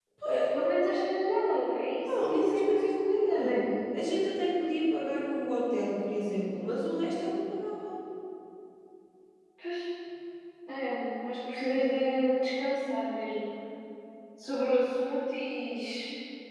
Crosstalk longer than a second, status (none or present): present